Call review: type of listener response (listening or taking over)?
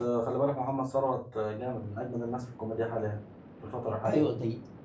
taking over